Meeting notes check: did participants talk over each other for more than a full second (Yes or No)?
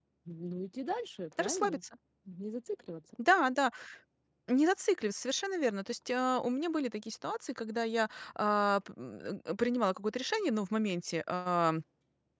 No